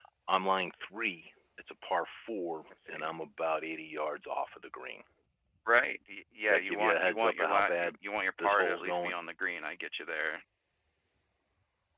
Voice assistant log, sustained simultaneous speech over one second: present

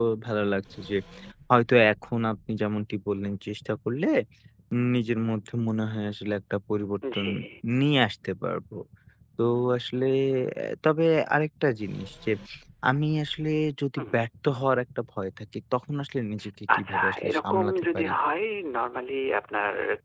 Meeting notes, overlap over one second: present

